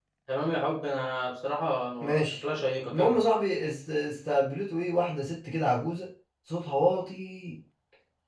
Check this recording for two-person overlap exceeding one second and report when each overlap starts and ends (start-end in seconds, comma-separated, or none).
none